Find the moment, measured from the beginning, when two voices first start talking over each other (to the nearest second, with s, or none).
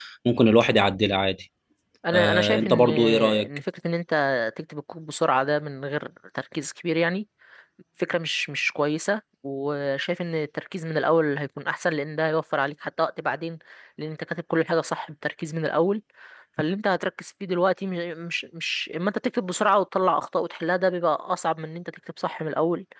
2 s